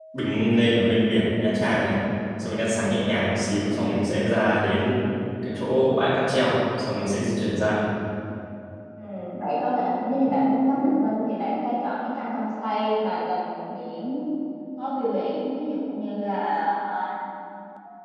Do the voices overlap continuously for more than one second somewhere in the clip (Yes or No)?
No